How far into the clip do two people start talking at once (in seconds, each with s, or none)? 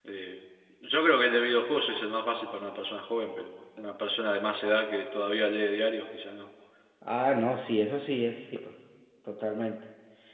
none